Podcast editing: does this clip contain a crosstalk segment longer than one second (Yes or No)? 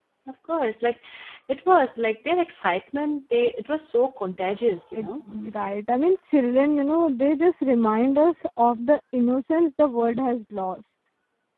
No